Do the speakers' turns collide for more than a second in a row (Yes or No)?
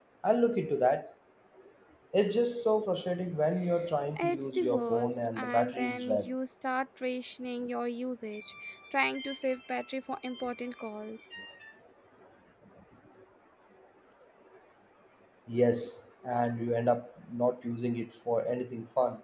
Yes